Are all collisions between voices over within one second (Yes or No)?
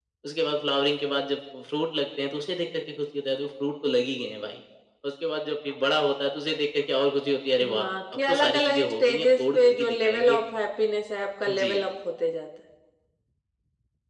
No